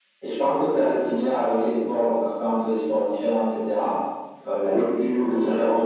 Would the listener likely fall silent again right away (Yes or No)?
Yes